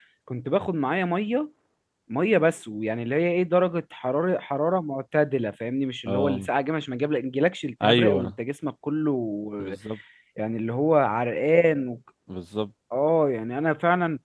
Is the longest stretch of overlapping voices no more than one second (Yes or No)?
Yes